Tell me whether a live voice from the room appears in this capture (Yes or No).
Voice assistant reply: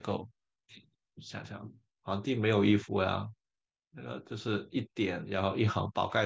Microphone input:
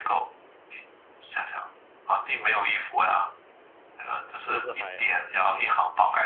Yes